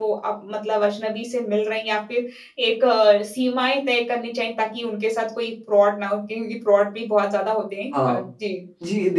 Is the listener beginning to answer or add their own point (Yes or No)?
Yes